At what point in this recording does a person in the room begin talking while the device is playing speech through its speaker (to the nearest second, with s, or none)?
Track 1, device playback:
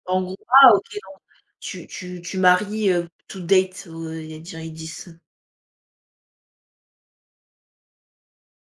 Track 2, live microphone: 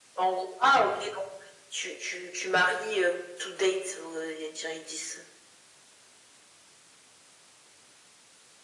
none